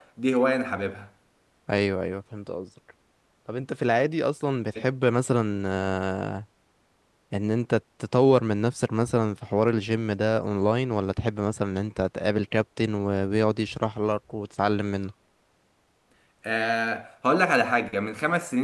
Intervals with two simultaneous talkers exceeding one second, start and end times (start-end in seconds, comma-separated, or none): none